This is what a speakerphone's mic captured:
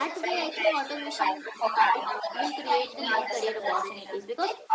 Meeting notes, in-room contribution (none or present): present